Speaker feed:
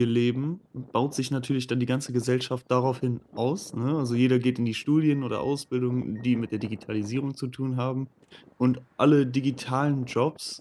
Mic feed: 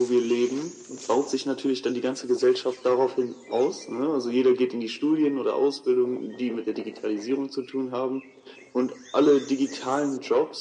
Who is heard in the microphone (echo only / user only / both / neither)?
echo only